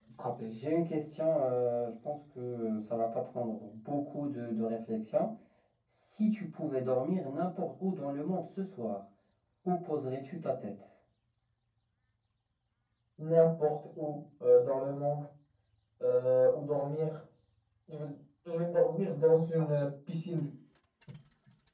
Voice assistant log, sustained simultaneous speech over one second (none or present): none